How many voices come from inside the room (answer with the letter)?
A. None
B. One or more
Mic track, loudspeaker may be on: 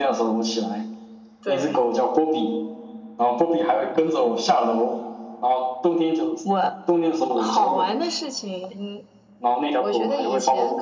A